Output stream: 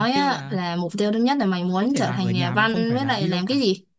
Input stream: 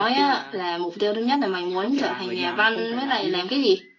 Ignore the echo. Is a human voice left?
No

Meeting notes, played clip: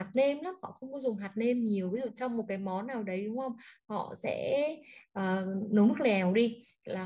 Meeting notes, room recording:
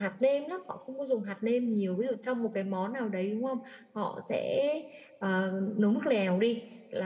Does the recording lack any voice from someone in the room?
Yes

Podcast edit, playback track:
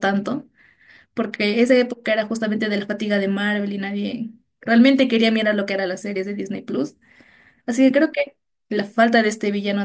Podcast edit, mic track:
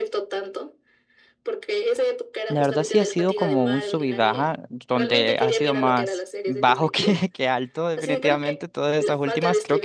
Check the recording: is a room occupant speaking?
Yes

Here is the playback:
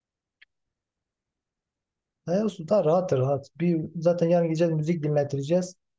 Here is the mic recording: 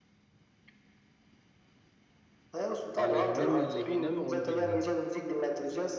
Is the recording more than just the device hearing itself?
Yes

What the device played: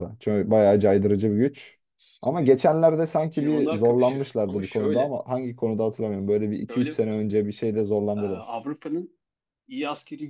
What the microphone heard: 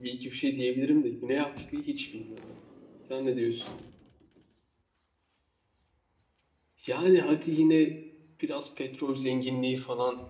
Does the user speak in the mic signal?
Yes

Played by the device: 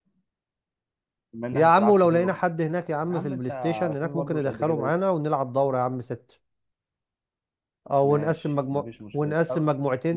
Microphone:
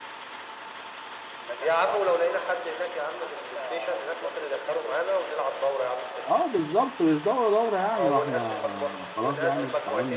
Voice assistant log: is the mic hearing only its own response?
No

